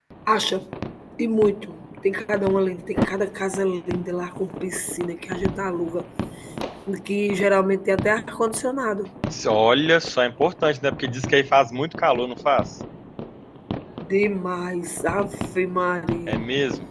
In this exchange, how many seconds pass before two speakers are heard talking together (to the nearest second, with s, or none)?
none